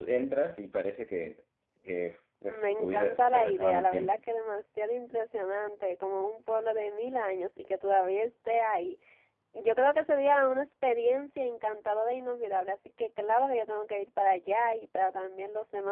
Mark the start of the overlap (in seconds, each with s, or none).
2.4 s